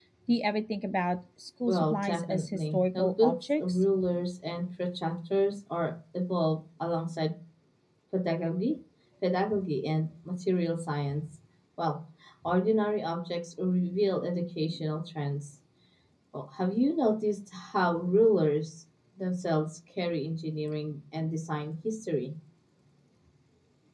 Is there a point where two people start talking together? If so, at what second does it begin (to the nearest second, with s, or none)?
2 s